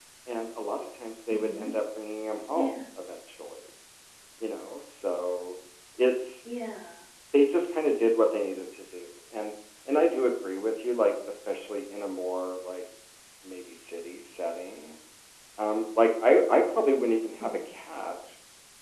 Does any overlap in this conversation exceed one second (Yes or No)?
No